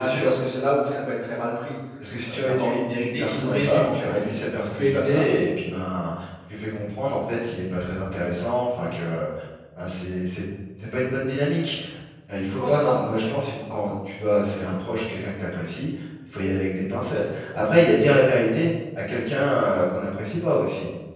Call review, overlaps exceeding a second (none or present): present